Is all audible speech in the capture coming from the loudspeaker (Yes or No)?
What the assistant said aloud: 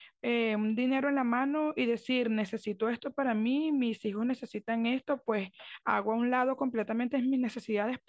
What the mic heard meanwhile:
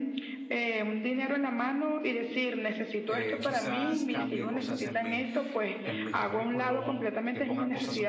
No